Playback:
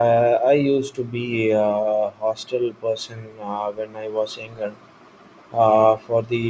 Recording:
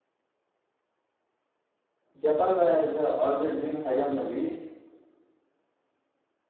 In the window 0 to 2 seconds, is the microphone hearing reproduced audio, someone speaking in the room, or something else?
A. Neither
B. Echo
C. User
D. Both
A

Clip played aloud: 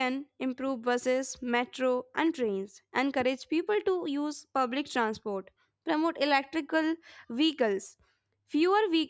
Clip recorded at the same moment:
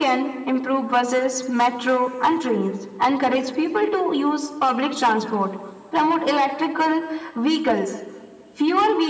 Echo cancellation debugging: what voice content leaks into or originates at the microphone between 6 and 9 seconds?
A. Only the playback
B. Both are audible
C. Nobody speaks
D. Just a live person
A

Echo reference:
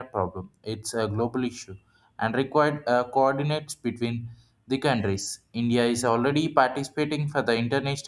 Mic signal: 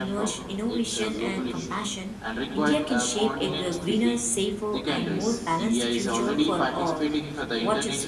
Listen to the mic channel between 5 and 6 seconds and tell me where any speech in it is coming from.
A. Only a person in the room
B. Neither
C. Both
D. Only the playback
C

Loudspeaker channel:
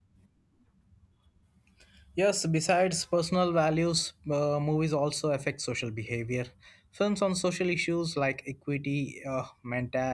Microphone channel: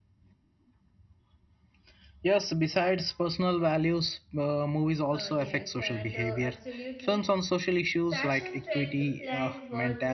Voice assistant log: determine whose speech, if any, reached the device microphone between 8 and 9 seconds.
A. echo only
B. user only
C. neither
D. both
D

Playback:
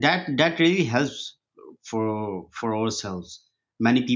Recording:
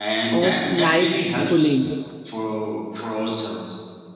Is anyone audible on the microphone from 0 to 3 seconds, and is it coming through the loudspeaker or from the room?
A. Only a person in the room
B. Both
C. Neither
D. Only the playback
B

